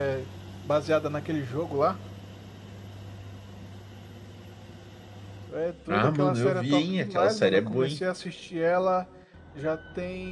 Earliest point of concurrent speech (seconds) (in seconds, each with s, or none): 5.9 s